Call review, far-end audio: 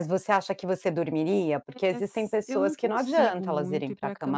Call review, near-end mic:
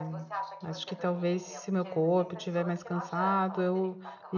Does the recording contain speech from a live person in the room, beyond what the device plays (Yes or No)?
Yes